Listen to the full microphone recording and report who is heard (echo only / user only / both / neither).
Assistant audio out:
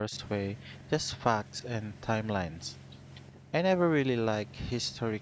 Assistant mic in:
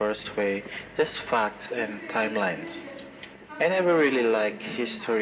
both